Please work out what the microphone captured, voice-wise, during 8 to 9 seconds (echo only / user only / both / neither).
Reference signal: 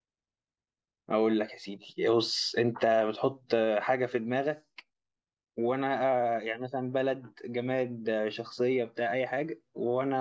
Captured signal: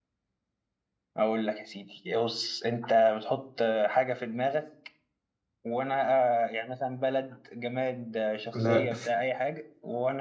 both